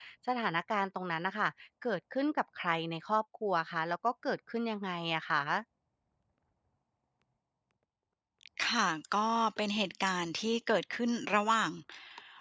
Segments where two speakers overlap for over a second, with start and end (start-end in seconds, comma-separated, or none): none